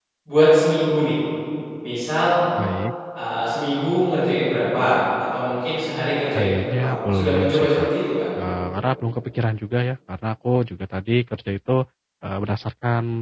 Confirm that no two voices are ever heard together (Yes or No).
No